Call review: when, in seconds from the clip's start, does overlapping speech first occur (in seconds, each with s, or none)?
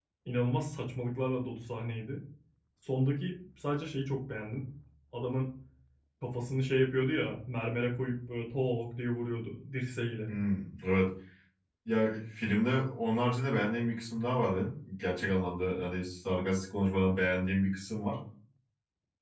none